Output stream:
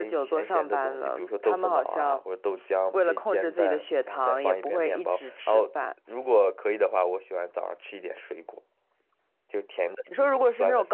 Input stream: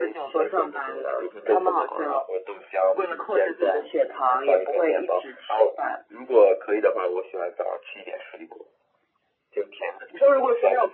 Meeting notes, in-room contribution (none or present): none